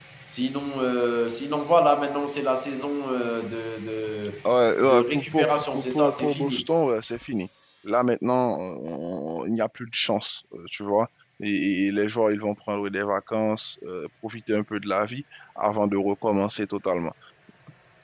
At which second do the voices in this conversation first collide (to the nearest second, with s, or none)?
5 s